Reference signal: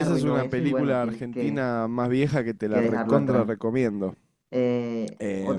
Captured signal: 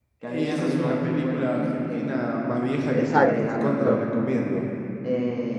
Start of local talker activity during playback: 2.9 s

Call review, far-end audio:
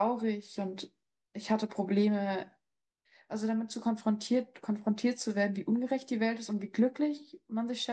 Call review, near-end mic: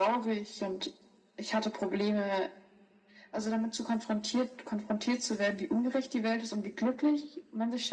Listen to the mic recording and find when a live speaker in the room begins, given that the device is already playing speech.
none

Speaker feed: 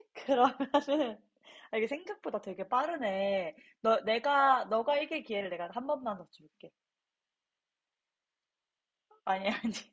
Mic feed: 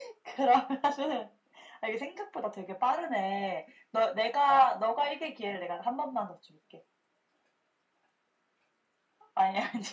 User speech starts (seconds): none

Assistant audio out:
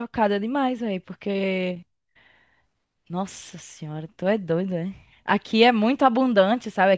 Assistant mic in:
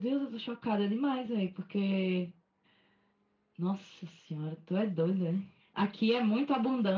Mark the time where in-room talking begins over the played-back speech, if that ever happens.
none

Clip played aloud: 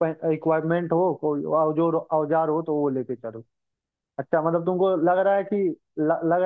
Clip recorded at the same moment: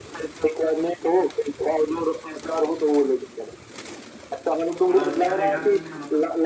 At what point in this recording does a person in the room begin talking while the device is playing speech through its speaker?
4.9 s

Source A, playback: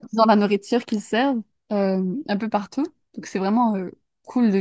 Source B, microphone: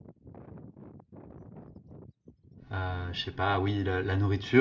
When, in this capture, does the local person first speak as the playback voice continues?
2.7 s

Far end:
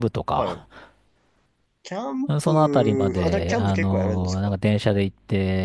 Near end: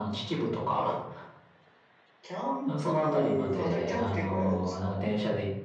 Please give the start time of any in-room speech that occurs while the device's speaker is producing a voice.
none

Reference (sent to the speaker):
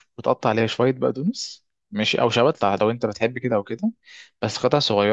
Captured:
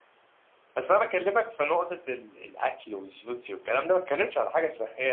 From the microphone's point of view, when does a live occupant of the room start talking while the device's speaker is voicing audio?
0.8 s

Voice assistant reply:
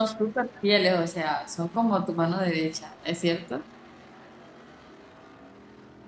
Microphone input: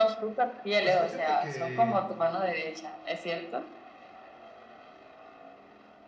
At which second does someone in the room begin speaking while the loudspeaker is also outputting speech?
0.8 s

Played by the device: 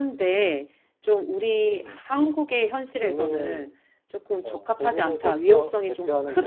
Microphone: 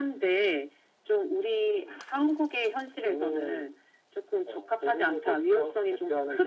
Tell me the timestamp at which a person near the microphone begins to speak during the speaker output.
none

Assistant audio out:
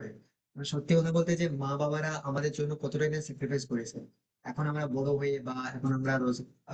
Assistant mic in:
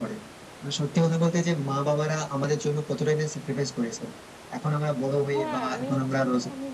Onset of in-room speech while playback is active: 5.3 s

